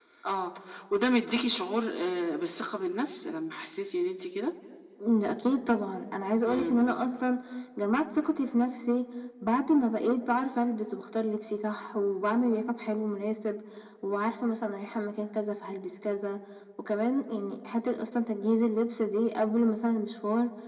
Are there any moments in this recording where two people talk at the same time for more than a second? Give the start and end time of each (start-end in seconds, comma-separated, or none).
none